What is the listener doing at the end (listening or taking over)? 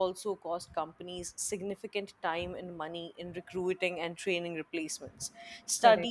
listening